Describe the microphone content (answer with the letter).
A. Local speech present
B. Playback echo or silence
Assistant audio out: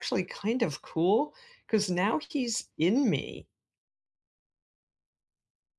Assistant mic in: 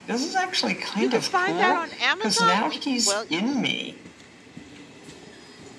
A